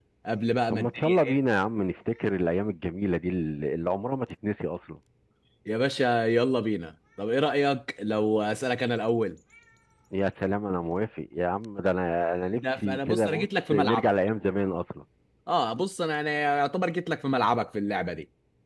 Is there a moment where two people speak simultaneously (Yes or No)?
Yes